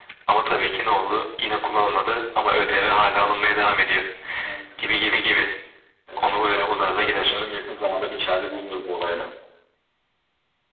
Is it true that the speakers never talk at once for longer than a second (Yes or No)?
No